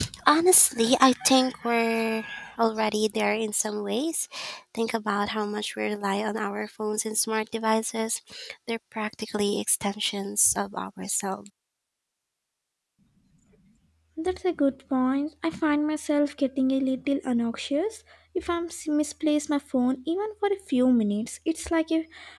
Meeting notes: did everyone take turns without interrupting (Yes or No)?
Yes